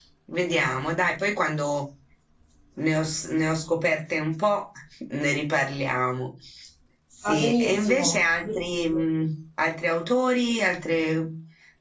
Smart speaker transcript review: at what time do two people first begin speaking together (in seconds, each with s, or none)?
7.2 s